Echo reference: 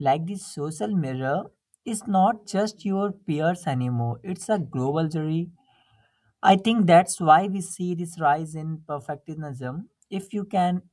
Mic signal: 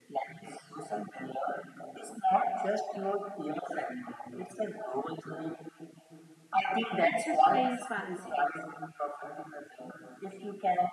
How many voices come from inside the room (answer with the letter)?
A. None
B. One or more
B